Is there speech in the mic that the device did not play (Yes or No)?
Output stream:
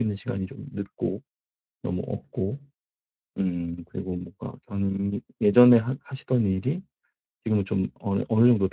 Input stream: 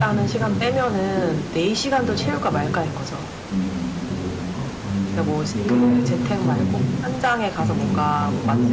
Yes